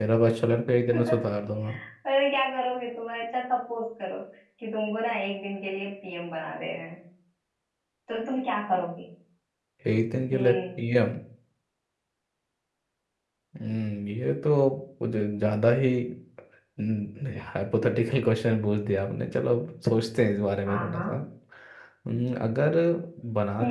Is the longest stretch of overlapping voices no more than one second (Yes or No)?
Yes